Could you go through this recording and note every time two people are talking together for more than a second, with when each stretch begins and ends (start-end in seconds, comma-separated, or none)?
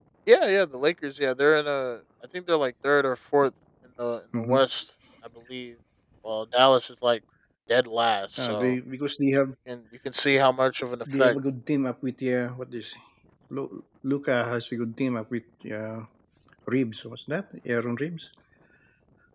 none